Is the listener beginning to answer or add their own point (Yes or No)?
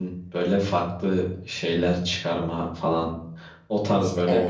No